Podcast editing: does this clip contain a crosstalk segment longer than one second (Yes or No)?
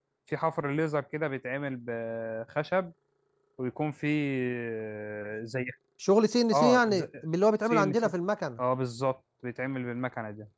No